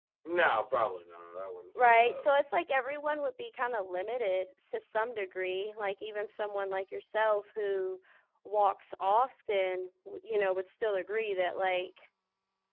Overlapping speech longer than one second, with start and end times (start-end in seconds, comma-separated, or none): none